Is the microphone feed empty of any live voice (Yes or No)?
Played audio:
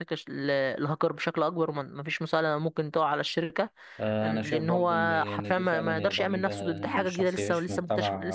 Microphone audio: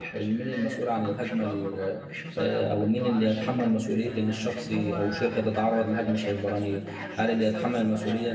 No